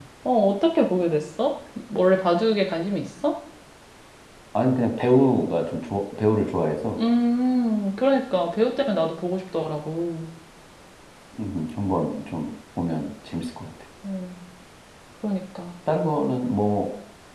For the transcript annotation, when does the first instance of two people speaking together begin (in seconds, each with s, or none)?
none